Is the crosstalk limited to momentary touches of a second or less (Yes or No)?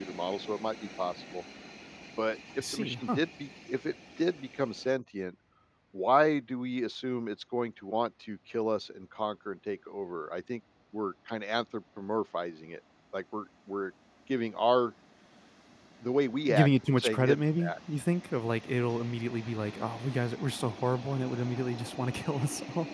No